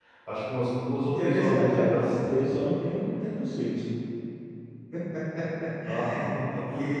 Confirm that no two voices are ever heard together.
No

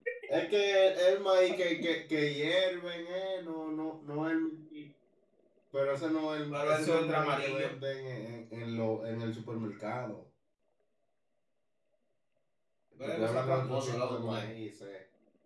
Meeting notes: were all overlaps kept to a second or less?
No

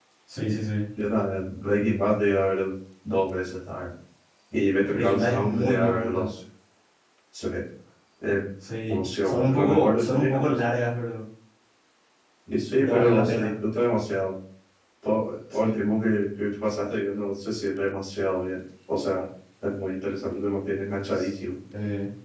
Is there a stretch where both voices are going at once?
Yes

